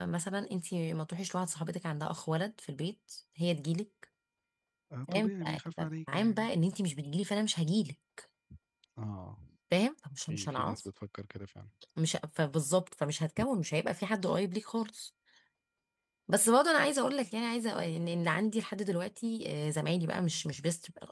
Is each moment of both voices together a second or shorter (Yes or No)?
No